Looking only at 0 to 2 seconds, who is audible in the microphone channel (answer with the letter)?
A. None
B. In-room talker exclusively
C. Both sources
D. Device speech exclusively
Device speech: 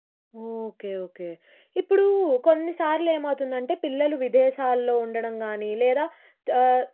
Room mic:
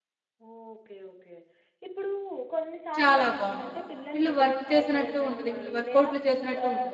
D